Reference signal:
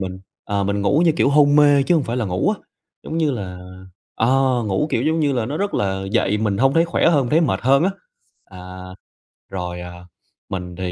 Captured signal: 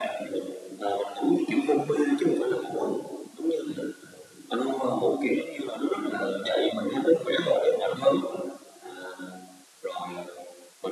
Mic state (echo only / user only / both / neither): echo only